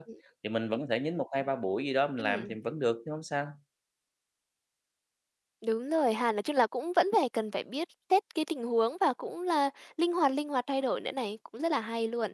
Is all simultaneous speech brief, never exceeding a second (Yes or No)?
Yes